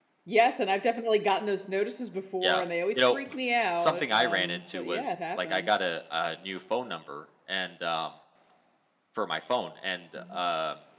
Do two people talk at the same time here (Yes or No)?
Yes